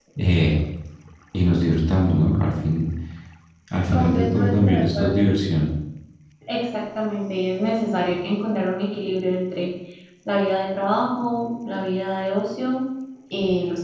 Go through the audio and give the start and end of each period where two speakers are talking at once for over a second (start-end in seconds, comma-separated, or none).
3.9-5.2